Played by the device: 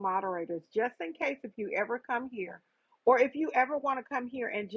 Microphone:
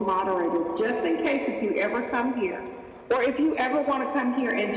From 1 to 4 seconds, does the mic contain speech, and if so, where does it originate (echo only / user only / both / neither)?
echo only